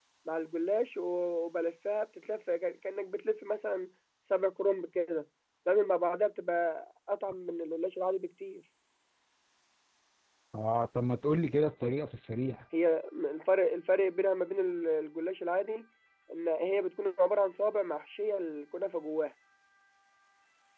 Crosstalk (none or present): none